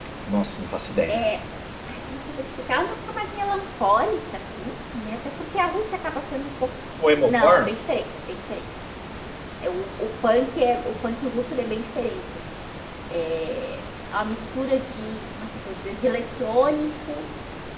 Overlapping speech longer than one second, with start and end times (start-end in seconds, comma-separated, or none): none